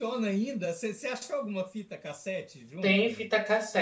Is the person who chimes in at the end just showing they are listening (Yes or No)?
No